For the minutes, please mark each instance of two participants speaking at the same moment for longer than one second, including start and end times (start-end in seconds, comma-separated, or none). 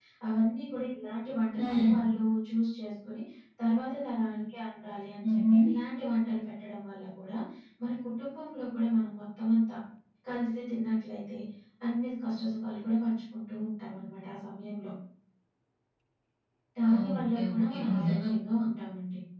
16.9-18.2